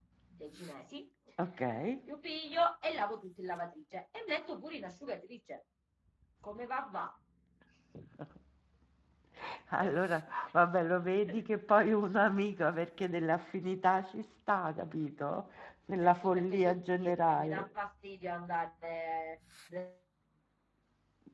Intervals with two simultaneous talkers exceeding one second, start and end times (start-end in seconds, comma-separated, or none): 16.0-17.7